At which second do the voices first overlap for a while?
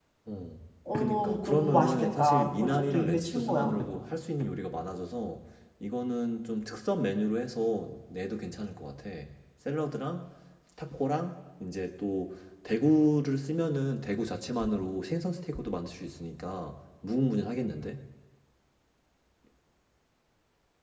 0.9 s

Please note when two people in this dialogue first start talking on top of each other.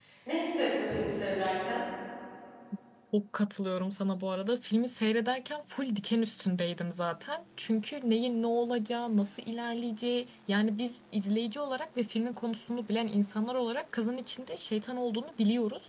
none

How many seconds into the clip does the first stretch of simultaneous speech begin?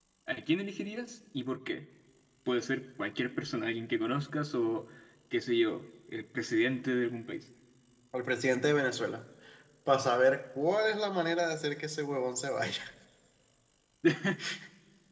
none

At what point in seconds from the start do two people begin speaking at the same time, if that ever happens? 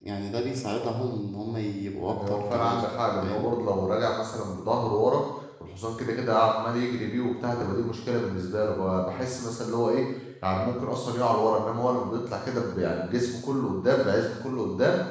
2.1 s

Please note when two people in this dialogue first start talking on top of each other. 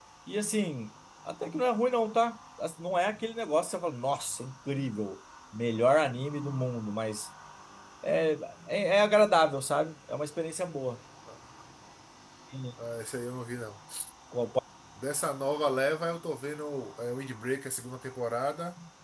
none

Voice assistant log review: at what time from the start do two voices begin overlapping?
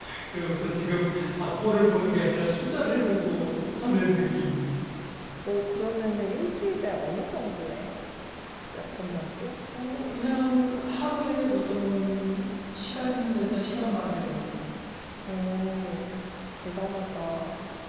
none

